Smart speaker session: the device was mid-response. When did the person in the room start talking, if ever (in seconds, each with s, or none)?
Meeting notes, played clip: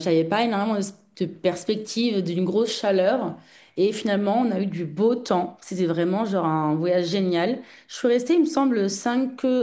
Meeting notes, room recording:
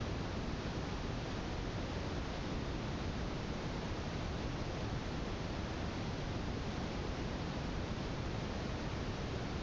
none